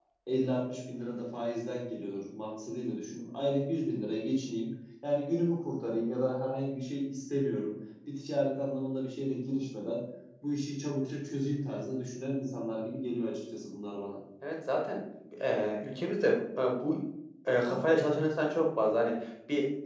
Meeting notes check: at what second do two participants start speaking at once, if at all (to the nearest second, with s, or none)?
none